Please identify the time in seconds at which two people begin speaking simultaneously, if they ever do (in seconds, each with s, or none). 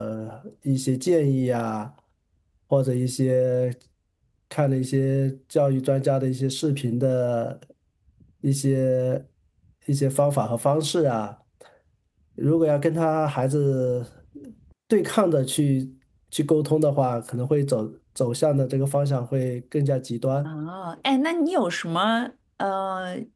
none